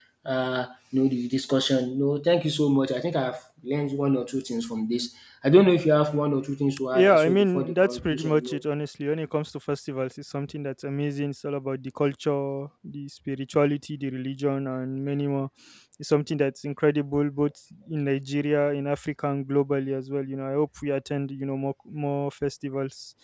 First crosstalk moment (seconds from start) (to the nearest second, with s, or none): 7 s